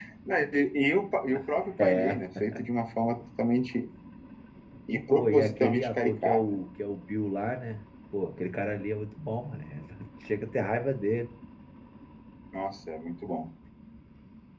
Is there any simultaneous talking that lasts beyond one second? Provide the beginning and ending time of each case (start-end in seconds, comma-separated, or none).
5.2-6.6